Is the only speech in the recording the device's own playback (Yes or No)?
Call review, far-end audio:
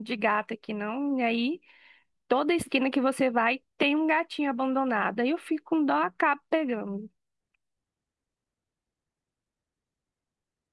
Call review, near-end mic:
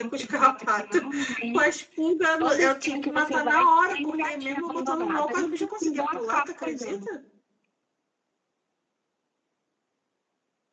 No